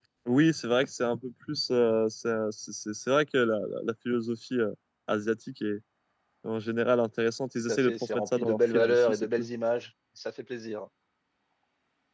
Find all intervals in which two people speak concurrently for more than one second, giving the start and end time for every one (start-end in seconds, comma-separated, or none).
7.7-9.3